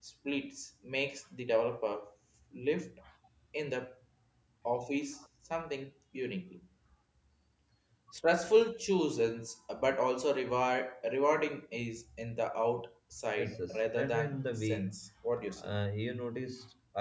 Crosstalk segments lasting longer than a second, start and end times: 13.3-14.9

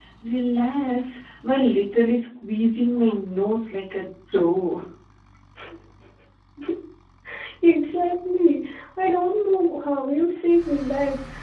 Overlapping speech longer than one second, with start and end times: none

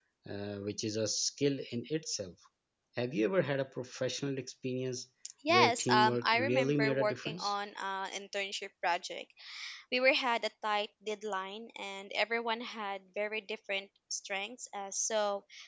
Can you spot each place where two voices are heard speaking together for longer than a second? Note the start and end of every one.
5.5-7.5

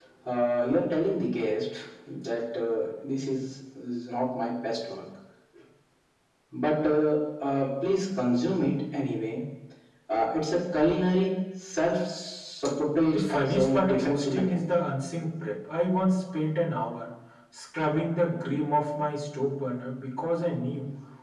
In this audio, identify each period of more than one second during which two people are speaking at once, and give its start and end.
13.1-14.7

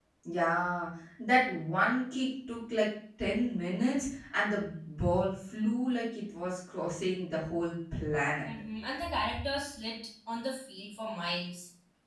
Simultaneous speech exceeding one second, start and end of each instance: none

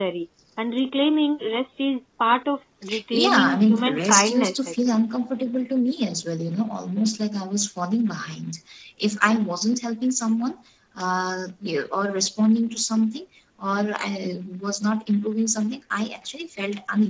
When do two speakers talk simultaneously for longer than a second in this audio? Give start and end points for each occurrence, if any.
3.1-4.8

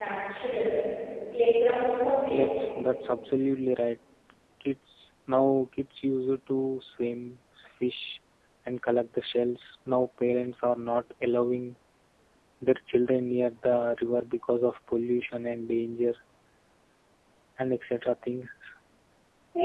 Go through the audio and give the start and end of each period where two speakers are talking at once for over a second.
none

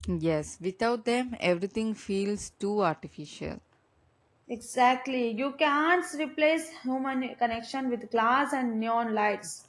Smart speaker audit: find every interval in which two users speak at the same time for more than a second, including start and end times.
none

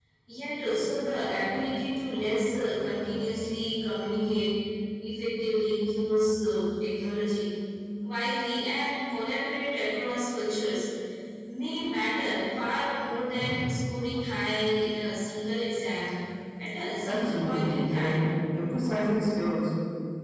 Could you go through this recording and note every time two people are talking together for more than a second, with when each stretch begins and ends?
17.0-18.3

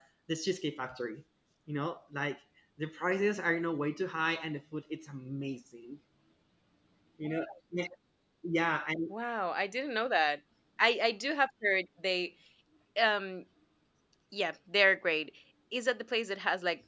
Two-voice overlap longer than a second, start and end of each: none

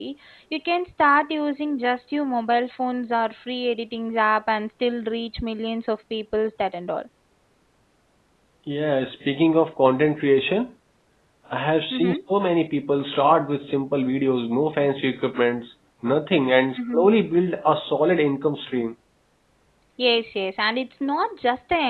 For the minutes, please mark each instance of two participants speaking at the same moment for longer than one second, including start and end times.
none

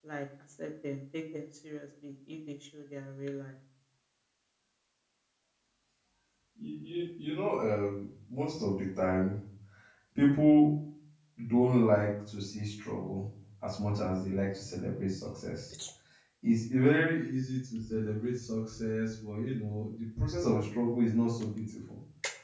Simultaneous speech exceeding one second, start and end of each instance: none

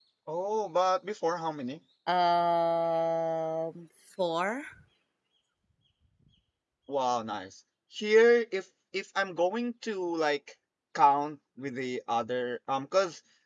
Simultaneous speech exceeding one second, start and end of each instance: none

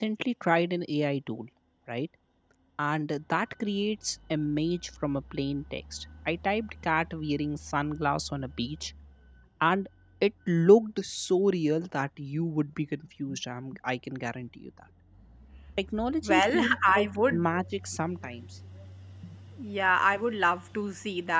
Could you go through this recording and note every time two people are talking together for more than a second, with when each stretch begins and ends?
16.2-17.5

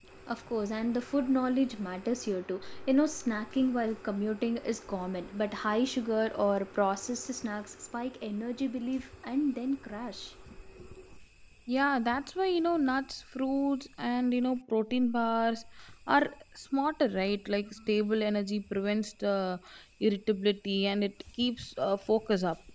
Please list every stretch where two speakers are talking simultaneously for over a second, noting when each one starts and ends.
none

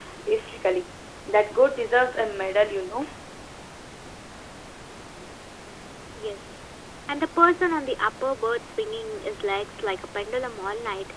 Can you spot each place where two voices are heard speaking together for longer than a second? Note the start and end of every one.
none

